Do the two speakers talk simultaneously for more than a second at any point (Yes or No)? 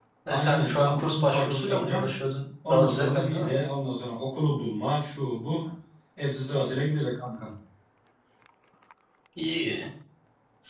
Yes